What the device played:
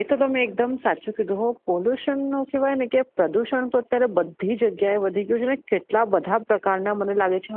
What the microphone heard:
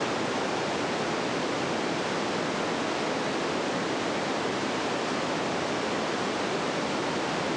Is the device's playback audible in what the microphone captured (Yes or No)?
No